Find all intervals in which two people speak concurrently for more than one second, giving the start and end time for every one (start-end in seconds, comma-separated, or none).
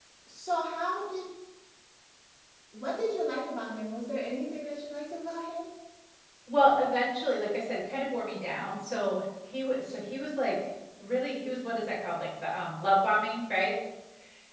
none